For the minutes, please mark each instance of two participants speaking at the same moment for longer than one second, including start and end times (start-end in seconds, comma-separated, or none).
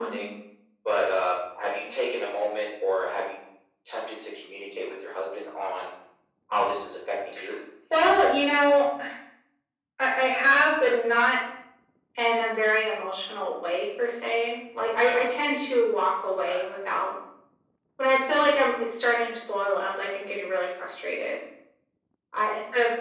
none